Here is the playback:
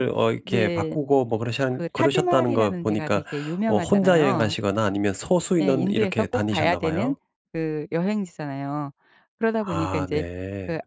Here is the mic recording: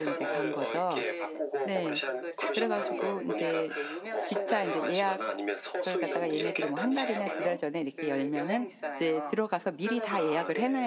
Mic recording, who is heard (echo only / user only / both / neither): both